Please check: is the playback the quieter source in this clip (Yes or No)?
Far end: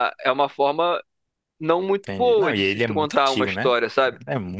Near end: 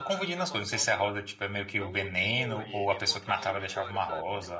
Yes